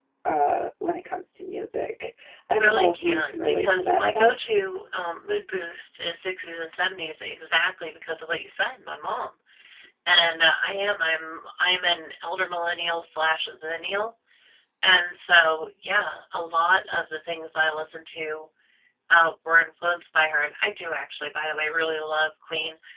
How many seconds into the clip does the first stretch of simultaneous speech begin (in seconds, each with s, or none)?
2.5 s